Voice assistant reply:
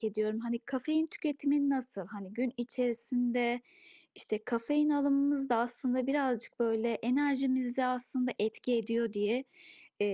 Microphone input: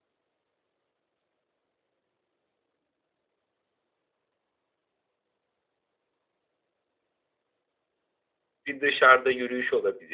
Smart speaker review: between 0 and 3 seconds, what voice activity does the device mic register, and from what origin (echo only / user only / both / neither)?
neither